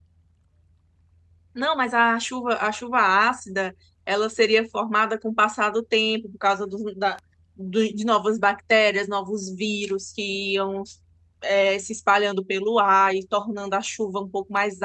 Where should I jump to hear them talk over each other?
none

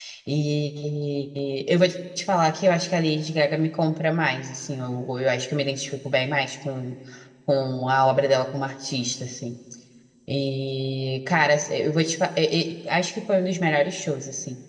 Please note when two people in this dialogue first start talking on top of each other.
none

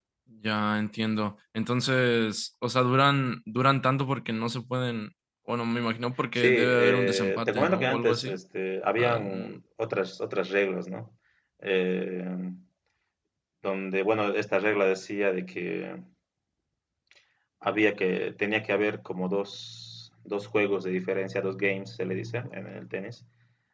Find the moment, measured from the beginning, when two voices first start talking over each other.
6.4 s

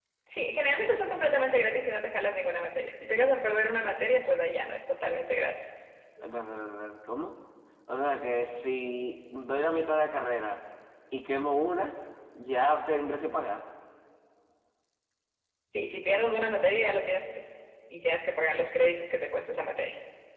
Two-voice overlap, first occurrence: none

